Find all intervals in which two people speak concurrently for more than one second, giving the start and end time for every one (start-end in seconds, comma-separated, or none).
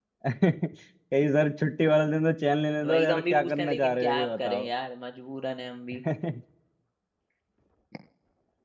2.9-4.7